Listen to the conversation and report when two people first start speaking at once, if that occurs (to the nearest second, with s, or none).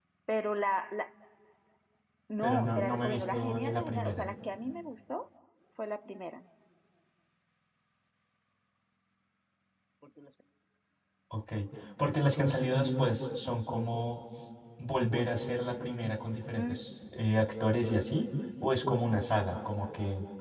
2 s